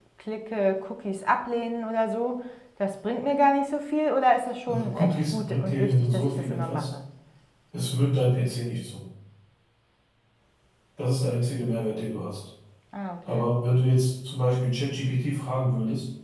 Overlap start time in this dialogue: 4.7 s

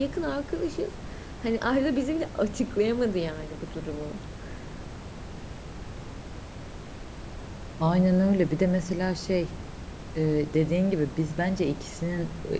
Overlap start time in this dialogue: none

